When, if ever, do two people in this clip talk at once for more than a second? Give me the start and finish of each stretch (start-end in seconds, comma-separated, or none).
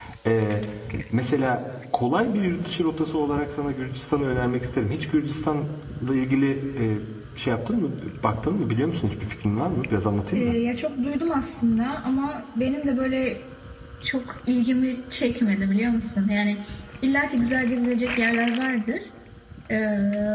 none